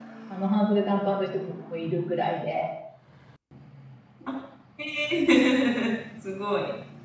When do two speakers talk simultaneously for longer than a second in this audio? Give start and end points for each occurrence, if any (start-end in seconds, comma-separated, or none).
none